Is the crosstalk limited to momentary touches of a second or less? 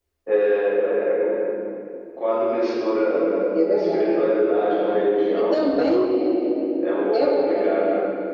Yes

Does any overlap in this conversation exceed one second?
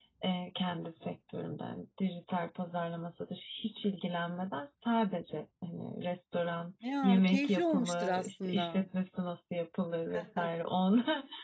Yes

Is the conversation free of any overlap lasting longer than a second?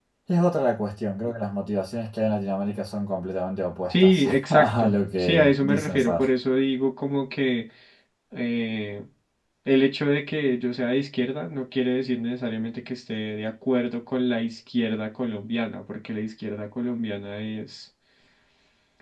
No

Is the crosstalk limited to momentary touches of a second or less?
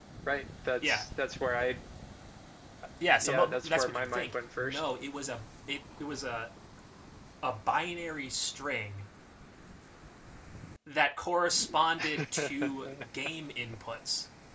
No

